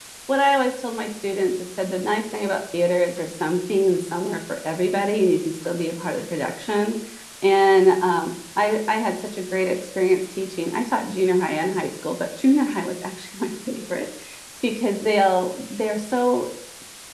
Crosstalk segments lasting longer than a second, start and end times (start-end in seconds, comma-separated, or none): none